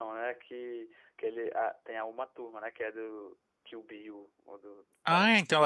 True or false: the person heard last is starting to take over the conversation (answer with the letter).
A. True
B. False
A